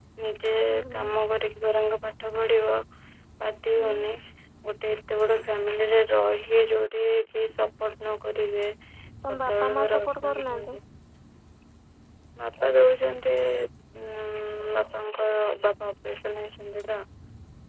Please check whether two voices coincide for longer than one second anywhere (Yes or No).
Yes